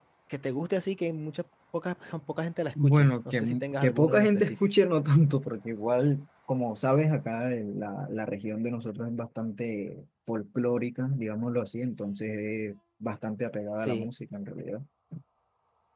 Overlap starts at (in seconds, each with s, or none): 2.8 s